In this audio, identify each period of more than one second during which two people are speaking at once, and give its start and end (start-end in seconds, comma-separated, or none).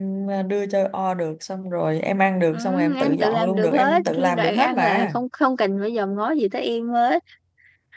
2.5-5.2